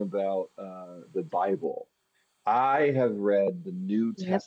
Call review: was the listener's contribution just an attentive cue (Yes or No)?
Yes